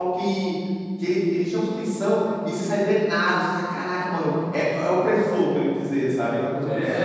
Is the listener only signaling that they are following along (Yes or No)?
No